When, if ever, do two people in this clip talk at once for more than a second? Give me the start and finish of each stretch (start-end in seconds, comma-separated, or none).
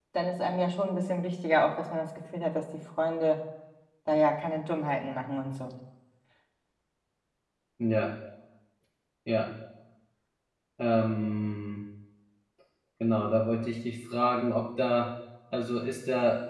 none